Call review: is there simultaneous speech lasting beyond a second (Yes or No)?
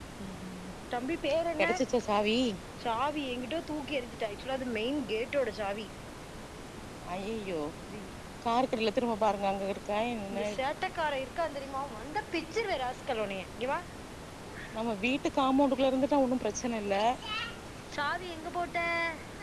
No